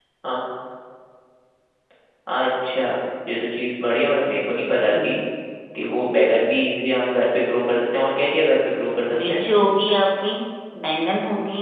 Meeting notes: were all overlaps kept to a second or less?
Yes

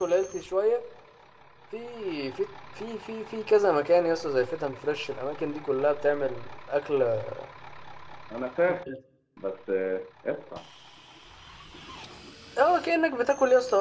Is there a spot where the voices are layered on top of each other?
No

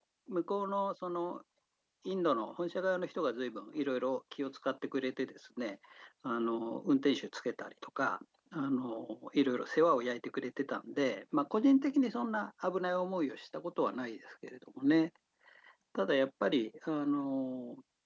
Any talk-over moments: No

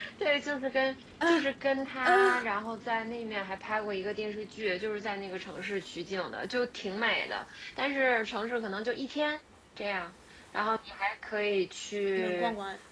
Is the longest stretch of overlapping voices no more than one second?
Yes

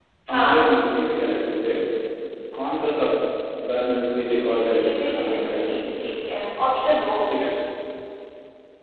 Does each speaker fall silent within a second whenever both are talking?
No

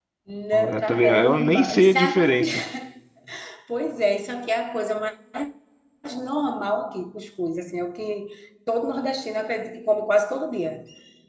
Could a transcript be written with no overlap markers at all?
No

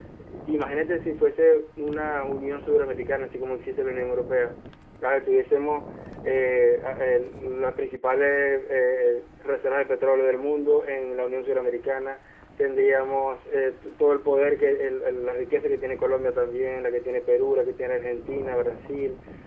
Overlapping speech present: No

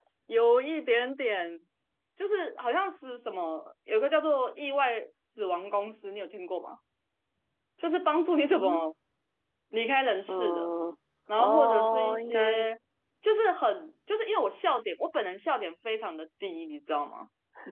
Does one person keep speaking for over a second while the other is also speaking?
Yes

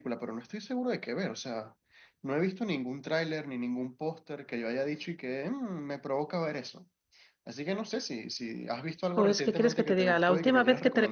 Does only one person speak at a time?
No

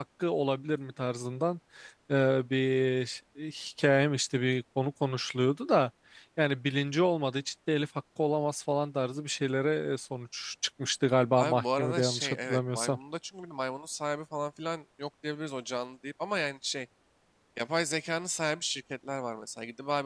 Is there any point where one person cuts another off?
Yes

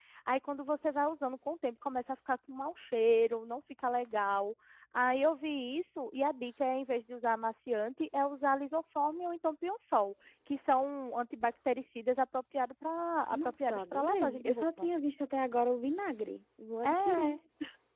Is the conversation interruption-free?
No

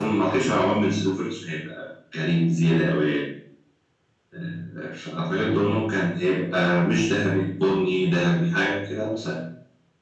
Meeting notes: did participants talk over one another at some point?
No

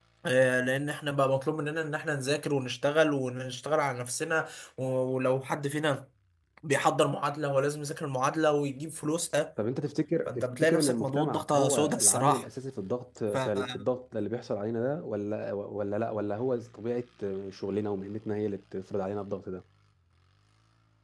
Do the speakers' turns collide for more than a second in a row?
Yes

